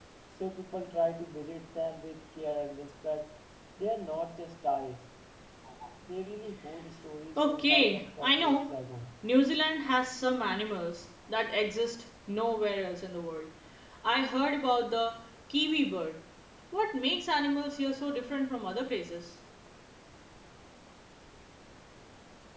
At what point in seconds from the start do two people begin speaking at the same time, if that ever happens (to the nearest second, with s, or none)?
7 s